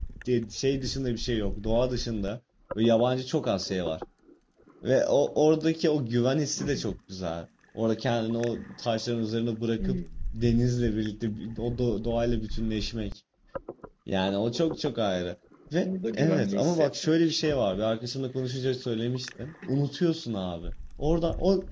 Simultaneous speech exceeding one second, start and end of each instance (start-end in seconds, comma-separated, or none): 15.8-17.4